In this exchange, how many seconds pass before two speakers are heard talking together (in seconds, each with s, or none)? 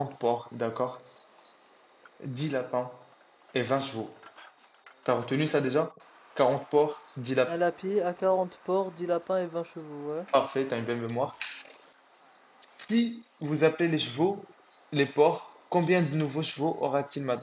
none